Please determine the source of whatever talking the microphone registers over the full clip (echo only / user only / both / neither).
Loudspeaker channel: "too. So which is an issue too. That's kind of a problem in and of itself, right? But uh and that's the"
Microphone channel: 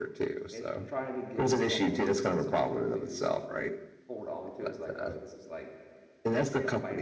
both